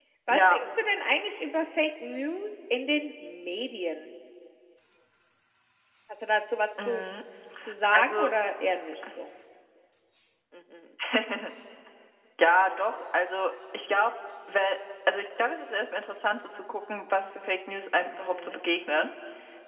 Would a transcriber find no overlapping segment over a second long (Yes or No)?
Yes